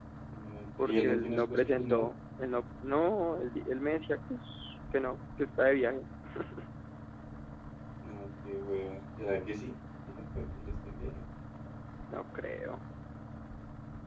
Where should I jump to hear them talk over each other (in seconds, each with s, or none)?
0.8 s